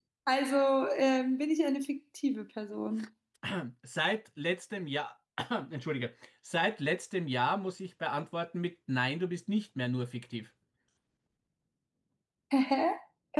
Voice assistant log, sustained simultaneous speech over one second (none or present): none